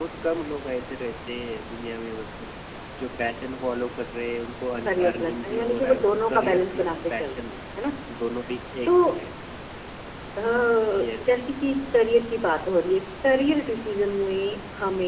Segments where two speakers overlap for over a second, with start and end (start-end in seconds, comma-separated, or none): 4.8-7.5